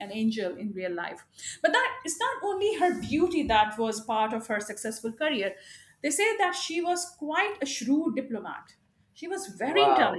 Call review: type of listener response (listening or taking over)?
taking over